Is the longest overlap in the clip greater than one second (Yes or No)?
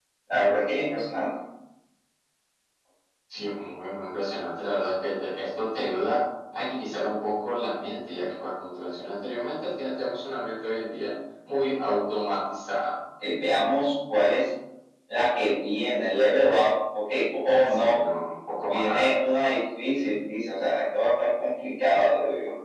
No